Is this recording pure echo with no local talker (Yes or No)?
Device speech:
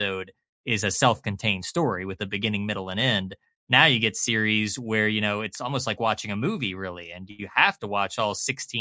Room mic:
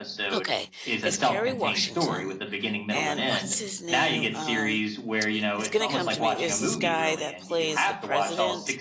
No